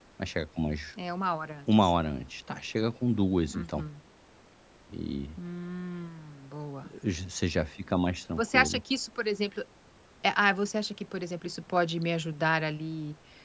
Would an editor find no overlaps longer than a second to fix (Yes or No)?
Yes